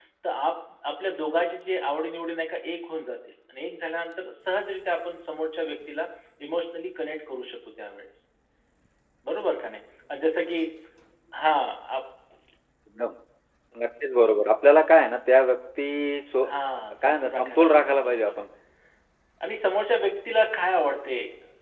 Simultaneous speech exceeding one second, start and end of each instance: 17.0-18.4

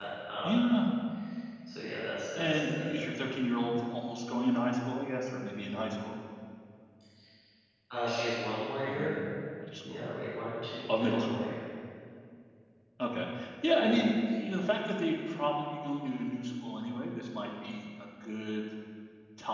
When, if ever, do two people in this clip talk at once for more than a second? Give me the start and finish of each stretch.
none

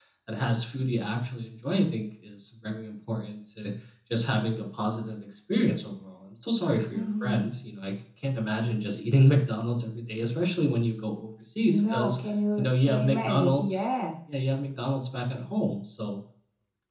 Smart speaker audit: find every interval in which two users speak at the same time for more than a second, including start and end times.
12.6-13.9

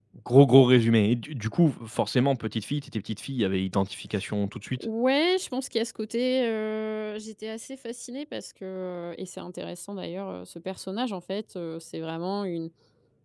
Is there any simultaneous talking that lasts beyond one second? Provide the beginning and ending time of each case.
none

